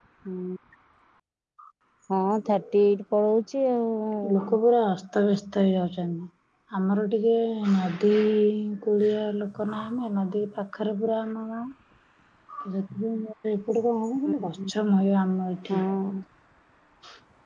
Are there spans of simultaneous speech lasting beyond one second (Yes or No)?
No